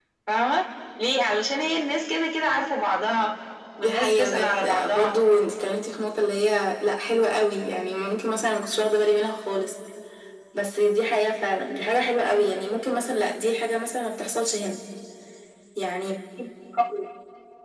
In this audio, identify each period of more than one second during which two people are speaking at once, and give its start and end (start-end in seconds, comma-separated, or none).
3.8-5.2